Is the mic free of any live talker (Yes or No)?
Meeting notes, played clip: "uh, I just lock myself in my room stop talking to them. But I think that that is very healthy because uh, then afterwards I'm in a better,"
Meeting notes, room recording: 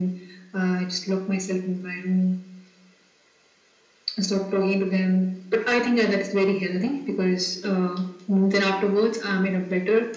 Yes